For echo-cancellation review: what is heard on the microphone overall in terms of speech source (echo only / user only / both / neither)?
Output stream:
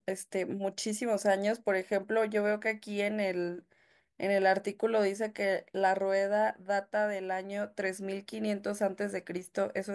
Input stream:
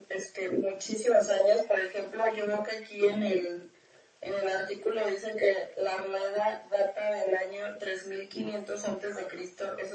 echo only